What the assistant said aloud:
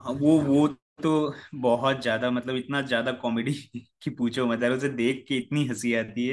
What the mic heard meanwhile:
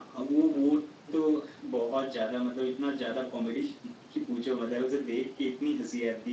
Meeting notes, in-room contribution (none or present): none